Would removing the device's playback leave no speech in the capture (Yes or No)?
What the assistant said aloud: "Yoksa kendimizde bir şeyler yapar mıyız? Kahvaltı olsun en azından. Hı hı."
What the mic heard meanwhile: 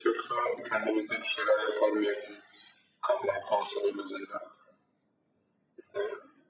Yes